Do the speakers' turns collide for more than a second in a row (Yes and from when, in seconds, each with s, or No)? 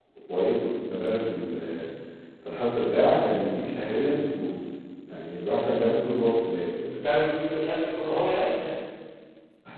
No